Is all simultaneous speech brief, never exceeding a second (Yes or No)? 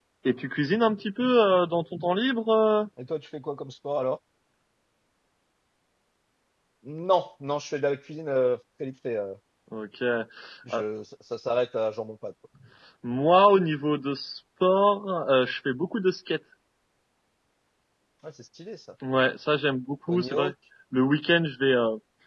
Yes